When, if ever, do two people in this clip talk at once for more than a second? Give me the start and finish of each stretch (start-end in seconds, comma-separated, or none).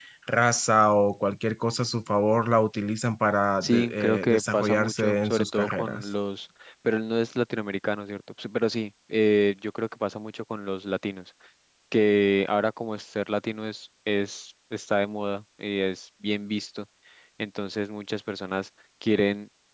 3.6-6.1